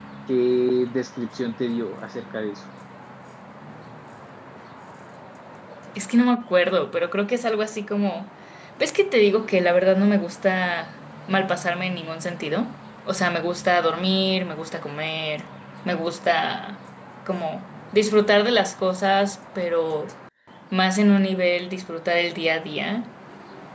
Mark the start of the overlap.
none

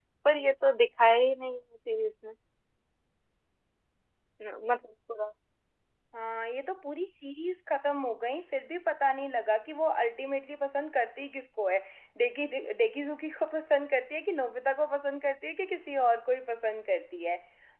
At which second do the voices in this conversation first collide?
none

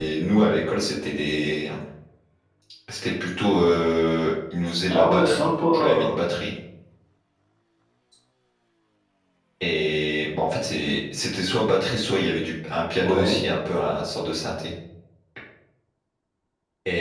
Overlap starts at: 4.9 s

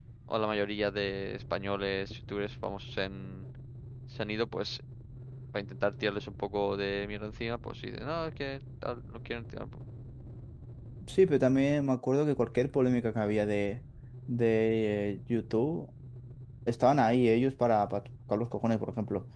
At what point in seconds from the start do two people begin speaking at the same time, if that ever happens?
none

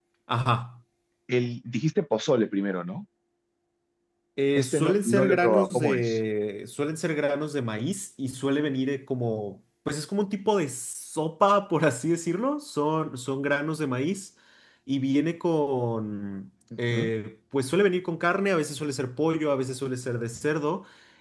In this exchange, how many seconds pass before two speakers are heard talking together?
4.5 s

